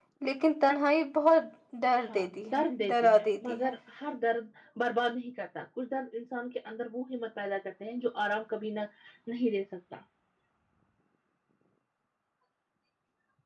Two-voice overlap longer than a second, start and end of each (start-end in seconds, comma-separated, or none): 2.1-3.7